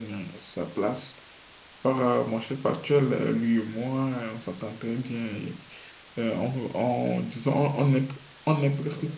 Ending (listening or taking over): listening